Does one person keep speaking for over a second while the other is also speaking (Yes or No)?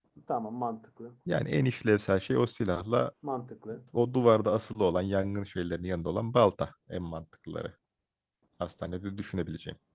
No